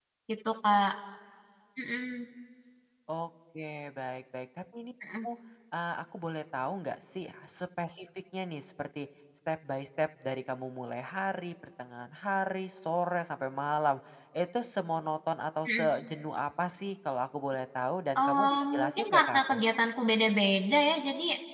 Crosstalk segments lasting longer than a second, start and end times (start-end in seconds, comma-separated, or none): 18.2-19.6